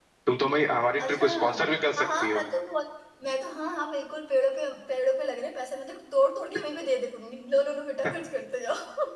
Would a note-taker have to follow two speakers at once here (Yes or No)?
Yes